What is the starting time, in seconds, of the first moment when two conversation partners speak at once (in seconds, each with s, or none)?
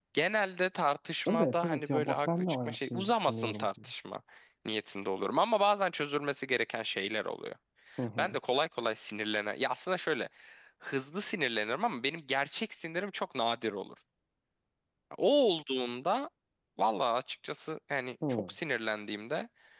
1.3 s